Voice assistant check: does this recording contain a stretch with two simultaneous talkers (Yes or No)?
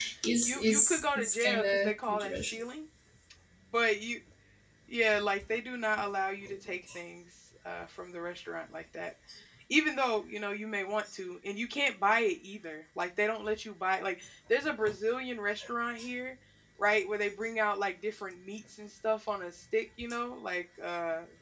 Yes